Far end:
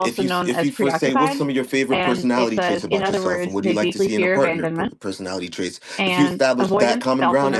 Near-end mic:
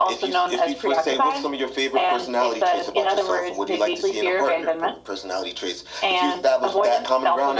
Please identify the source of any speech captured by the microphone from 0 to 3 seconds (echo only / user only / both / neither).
echo only